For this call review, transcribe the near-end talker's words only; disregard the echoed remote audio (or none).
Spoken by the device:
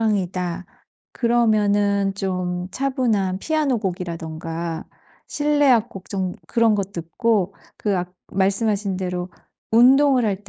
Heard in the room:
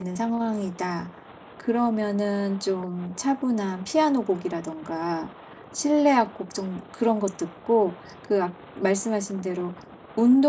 none